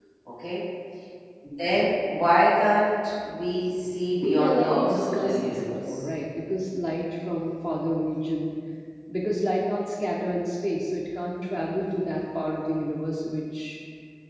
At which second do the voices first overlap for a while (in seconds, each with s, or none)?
4.3 s